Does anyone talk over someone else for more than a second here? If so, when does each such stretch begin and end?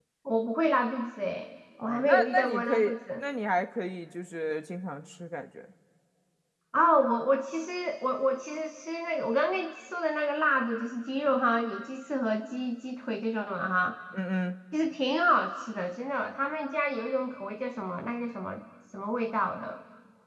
1.8-3.2

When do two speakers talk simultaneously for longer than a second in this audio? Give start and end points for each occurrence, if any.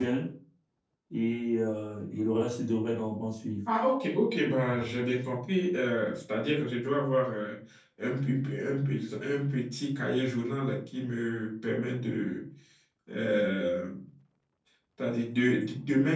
none

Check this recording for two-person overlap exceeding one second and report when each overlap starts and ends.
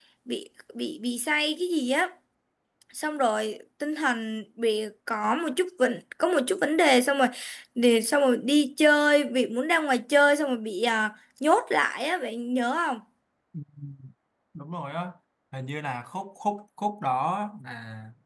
none

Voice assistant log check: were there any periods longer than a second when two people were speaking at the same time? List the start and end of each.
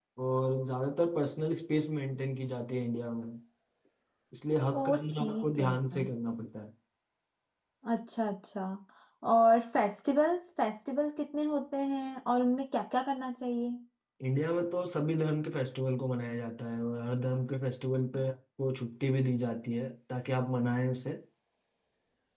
4.8-6.0

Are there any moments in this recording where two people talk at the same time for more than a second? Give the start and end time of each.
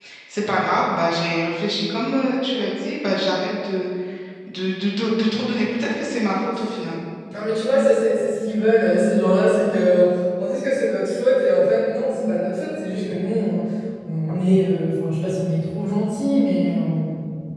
none

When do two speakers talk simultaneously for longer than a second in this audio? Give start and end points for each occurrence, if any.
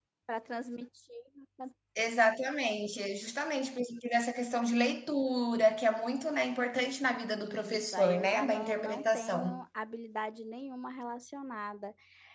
7.4-9.6

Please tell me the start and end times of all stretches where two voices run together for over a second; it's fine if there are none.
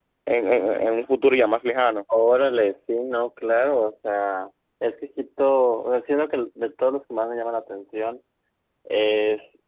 none

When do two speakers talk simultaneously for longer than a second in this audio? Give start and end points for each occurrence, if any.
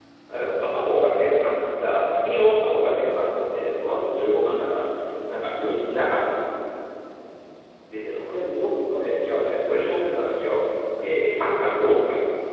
8.3-9.7

